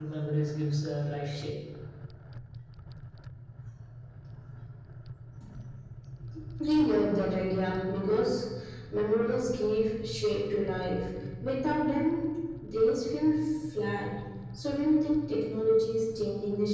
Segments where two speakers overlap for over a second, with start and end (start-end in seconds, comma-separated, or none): none